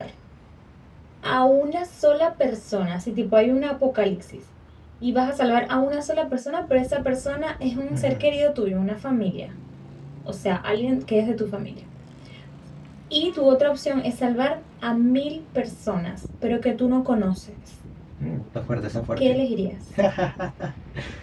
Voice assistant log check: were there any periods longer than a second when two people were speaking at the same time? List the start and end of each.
none

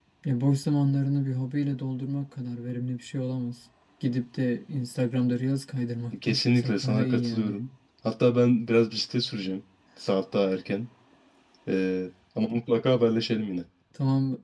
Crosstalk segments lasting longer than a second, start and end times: 6.2-7.6

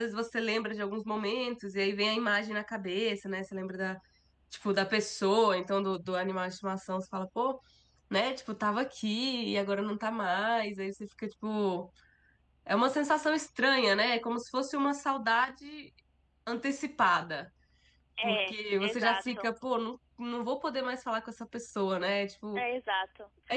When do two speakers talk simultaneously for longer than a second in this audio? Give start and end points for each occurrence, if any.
18.2-19.5

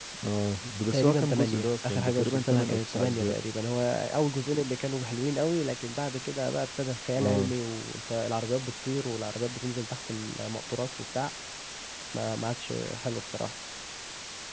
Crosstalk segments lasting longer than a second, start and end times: 0.9-3.3

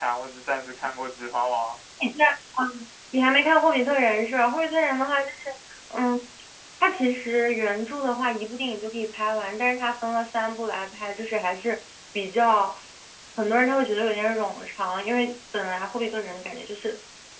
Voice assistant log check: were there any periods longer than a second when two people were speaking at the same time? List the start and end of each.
none

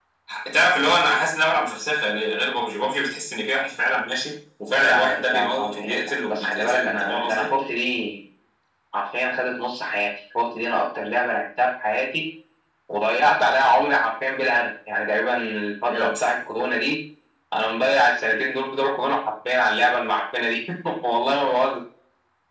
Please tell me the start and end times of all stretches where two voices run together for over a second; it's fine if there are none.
4.8-7.5

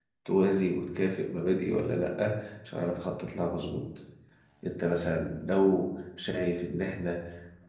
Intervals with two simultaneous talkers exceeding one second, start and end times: none

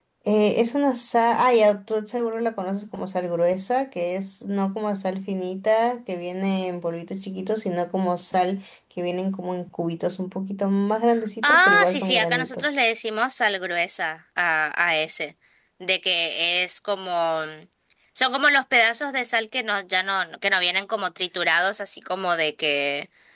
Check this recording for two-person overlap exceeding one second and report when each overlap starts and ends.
11.4-12.8

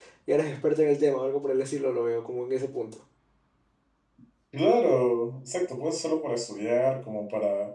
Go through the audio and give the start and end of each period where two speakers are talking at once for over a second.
none

